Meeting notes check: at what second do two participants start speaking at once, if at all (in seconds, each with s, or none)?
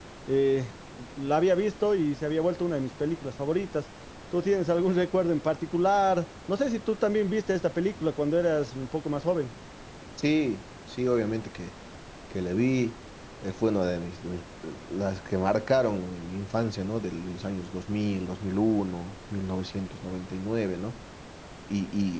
none